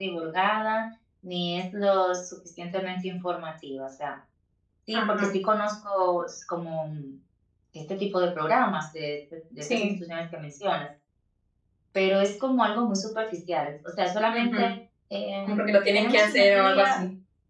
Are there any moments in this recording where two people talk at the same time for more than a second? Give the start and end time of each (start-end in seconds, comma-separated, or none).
15.4-17.0